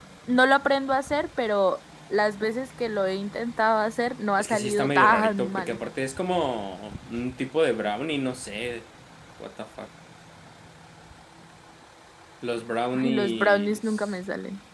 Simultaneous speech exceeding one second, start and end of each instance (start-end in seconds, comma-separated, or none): 4.4-5.8, 12.9-14.2